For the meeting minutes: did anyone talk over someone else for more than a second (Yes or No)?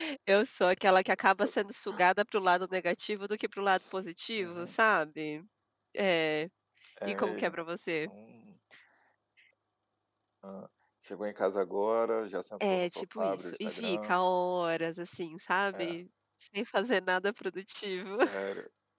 Yes